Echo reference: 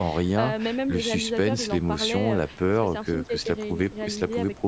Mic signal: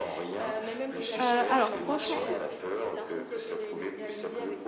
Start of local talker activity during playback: 1.2 s

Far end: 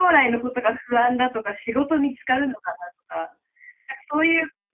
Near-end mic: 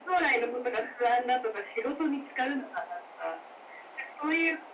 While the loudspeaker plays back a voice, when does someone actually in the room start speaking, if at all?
none

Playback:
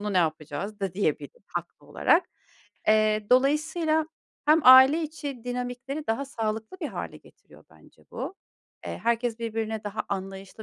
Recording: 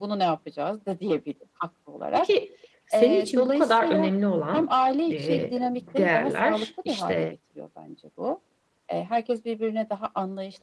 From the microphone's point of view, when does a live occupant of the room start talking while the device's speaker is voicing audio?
2.1 s

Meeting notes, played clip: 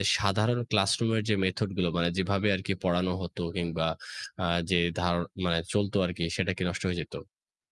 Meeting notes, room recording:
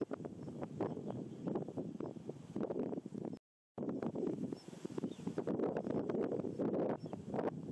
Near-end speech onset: none

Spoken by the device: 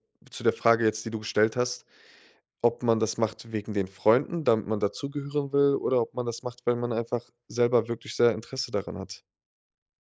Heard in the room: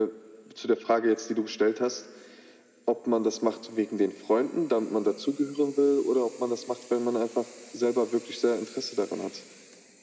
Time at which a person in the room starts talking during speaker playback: none

